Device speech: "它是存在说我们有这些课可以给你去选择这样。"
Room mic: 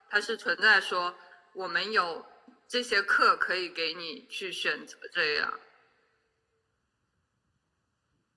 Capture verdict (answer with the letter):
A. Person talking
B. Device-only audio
B